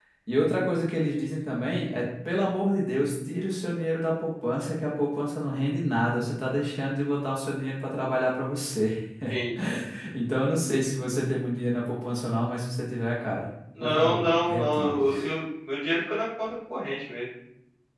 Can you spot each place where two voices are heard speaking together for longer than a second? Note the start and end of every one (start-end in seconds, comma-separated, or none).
13.8-15.0